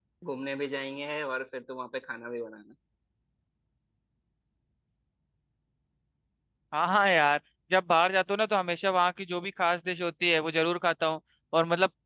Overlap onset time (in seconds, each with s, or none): none